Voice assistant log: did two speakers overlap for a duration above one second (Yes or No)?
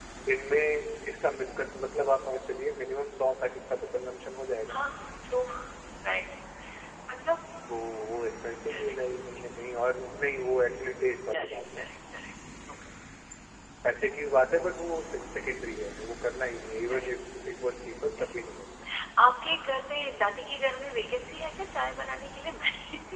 No